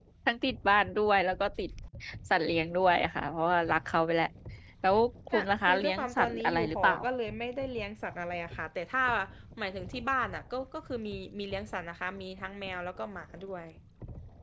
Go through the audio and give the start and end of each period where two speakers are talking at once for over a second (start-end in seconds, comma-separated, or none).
5.3-7.0